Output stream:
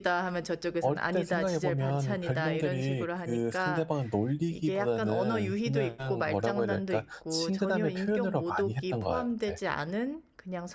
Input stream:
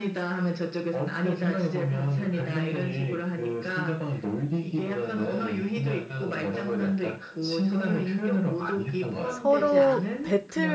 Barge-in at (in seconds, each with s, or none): 9.3 s